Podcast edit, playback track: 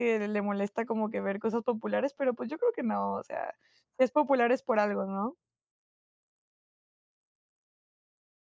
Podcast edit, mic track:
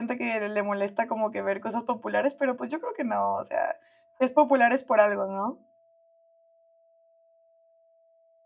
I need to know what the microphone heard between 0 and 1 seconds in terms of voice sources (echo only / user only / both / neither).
echo only